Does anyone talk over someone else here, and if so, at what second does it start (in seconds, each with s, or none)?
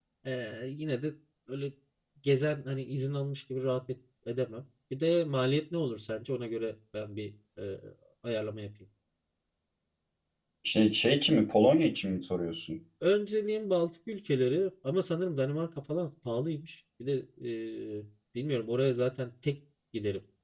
none